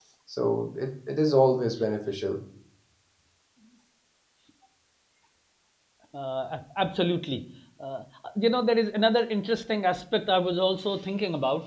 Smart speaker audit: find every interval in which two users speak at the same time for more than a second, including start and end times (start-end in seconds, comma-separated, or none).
none